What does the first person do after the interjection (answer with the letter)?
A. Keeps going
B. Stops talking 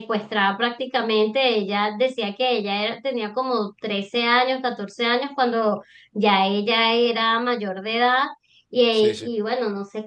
A